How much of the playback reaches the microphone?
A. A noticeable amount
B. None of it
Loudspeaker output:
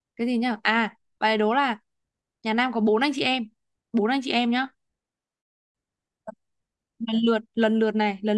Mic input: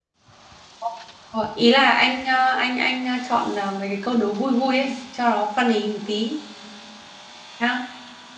B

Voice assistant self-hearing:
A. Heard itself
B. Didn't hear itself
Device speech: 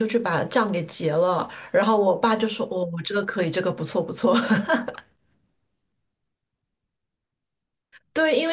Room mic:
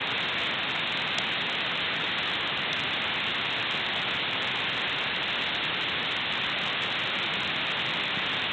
B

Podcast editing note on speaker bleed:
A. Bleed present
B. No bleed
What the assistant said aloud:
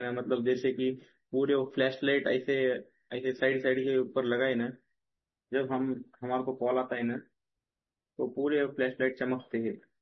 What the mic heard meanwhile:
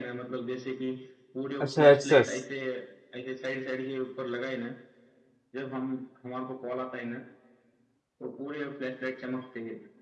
A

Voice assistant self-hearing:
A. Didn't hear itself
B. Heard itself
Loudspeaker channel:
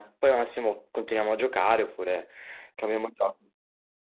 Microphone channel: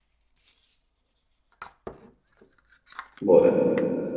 A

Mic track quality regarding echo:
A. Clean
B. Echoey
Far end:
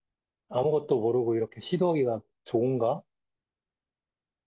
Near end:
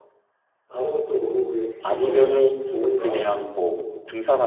B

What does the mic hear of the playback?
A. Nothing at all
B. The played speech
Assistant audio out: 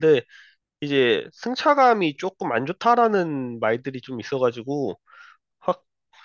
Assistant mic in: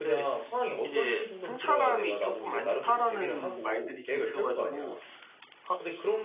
B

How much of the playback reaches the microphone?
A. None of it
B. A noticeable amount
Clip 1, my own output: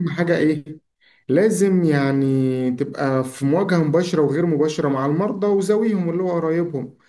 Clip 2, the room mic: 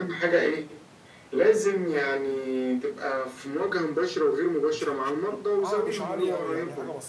B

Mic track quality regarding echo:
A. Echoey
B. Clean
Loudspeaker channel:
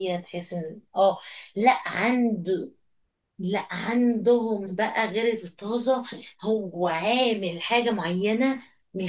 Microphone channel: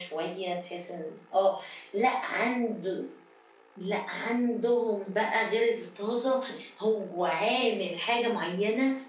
A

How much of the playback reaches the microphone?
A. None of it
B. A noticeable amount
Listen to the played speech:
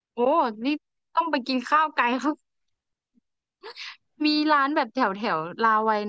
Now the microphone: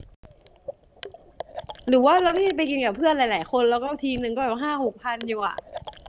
A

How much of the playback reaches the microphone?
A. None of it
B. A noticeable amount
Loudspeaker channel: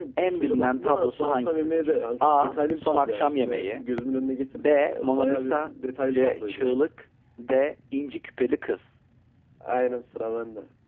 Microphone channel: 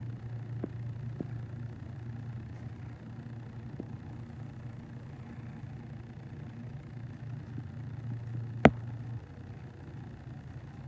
A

